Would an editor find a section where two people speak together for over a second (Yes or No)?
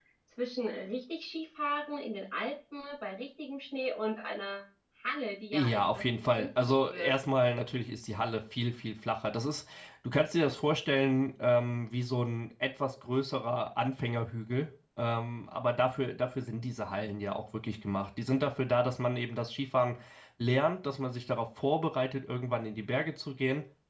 Yes